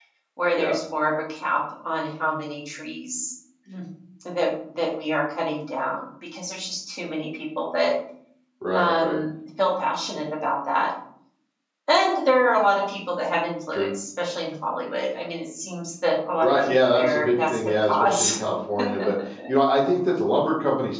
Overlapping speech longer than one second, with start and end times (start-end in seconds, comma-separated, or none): 16.4-18.3